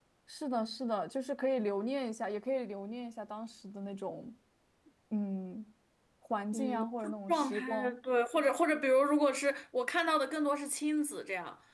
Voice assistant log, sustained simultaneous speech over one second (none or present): present